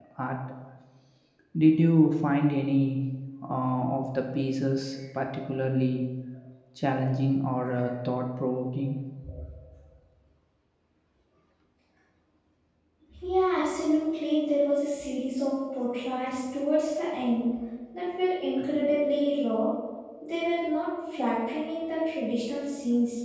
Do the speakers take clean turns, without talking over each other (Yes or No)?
Yes